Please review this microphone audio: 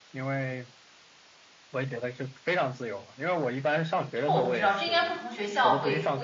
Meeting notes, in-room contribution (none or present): present